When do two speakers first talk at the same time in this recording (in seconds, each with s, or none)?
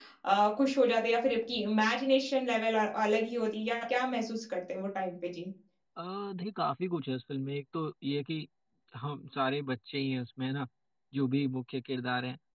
none